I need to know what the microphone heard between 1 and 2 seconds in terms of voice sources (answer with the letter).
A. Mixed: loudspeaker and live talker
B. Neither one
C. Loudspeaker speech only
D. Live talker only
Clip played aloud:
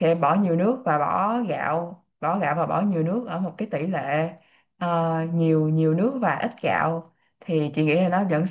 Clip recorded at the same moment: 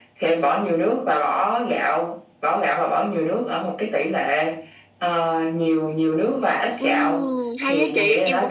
C